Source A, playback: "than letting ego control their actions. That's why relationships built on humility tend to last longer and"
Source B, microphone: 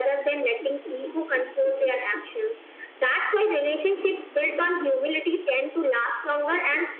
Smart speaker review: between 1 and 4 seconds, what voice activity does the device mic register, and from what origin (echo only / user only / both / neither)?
echo only